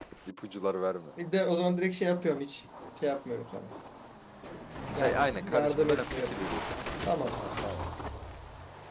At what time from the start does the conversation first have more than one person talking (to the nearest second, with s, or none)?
5 s